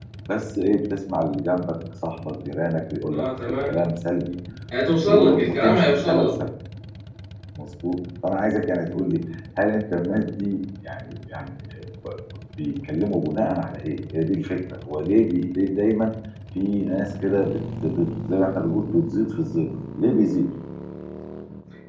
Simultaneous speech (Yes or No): Yes